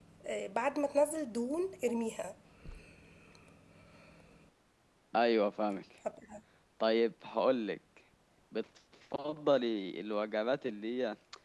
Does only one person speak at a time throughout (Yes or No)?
Yes